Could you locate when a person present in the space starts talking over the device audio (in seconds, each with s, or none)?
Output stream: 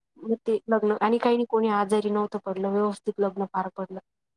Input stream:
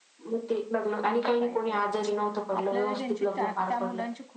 1.1 s